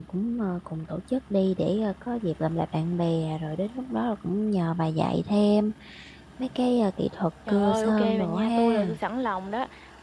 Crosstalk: present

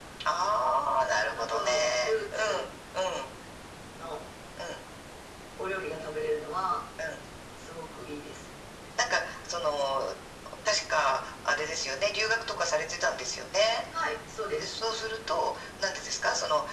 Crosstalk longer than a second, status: present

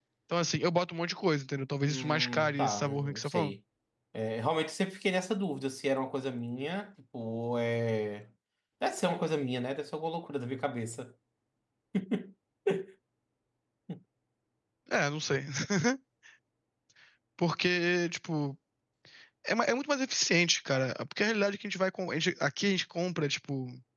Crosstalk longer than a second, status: present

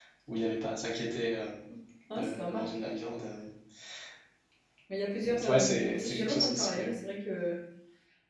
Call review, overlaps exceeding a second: present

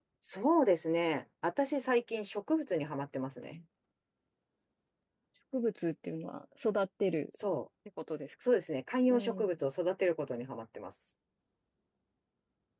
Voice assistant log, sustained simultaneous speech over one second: none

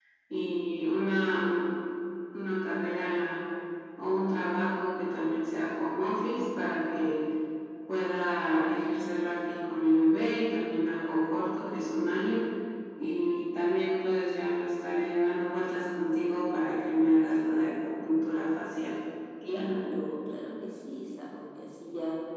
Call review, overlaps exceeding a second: none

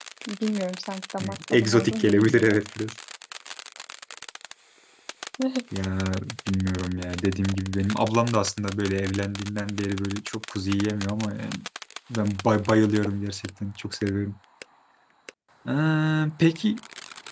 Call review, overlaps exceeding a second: present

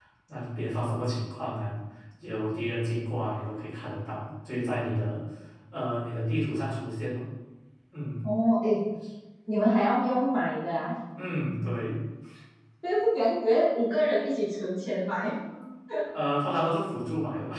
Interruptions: none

